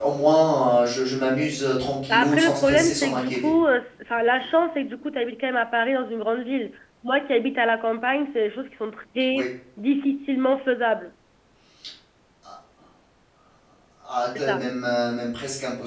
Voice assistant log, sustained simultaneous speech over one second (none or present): present